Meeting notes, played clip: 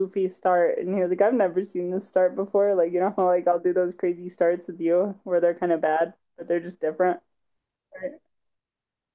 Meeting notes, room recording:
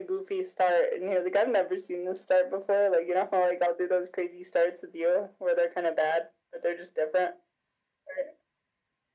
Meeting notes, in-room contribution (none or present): none